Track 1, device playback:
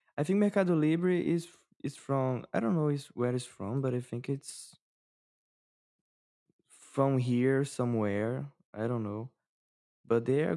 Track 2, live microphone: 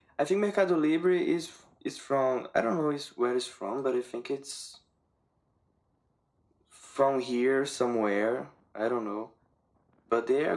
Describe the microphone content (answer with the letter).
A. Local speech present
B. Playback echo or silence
B